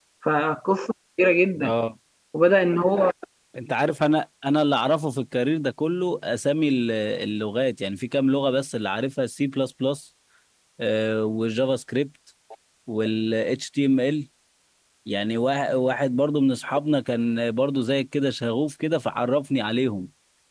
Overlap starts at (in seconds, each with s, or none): none